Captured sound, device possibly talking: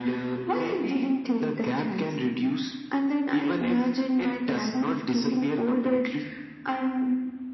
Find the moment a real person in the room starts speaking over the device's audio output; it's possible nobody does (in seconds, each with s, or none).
none